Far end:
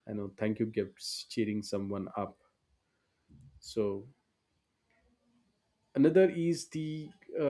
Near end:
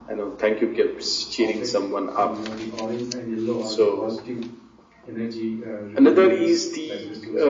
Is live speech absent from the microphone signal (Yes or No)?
No